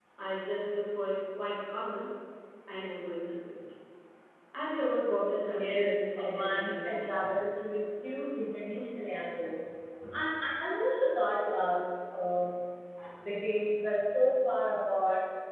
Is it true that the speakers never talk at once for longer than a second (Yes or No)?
No